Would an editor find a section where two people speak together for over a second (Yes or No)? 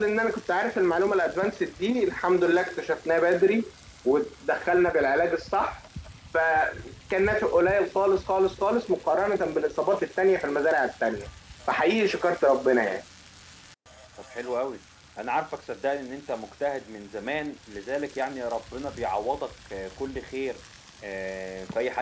No